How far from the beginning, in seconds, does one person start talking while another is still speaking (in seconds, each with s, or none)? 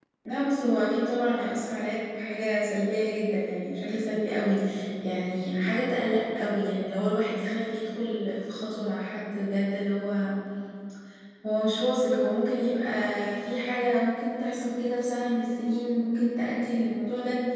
none